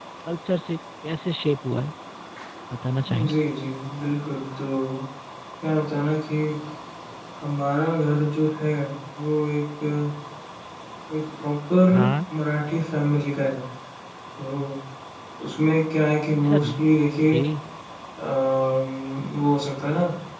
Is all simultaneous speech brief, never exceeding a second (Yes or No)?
Yes